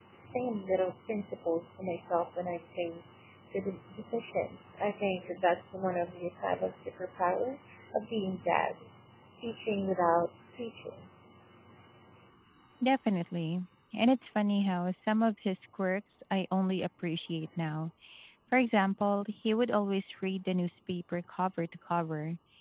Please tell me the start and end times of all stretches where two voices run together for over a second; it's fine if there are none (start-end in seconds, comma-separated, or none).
none